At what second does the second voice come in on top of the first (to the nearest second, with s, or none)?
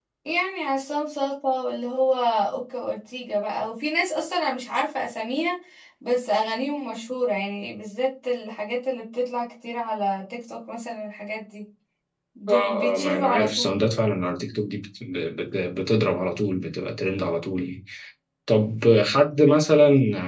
12 s